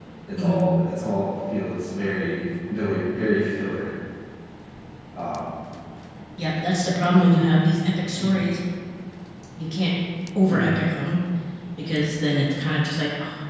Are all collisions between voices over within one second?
Yes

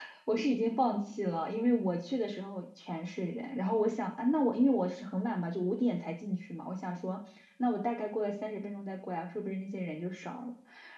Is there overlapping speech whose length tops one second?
No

